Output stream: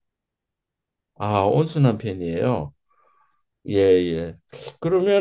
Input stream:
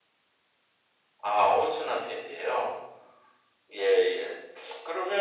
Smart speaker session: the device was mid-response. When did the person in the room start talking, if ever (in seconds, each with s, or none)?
none